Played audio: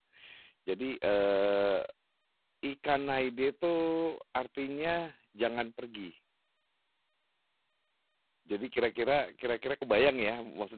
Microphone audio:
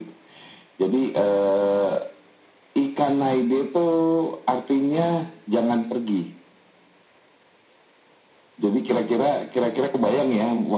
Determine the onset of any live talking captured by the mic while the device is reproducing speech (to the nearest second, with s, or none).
none